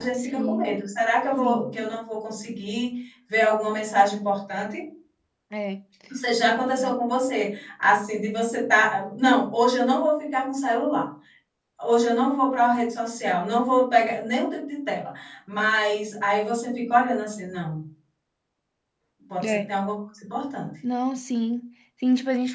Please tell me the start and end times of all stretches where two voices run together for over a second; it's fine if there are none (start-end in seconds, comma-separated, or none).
none